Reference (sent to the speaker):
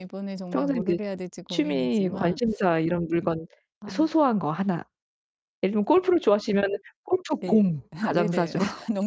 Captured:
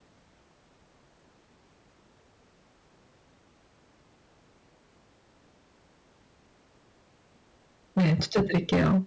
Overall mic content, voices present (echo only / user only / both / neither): user only